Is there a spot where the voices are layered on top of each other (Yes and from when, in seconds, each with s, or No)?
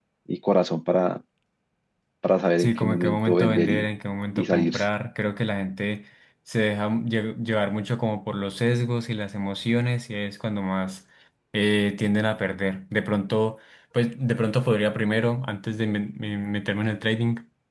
Yes, from 2.6 s